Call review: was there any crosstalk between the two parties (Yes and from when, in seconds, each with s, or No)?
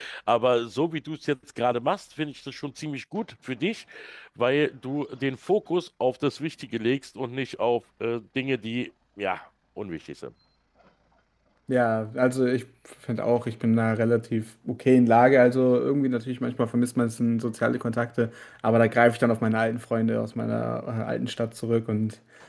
No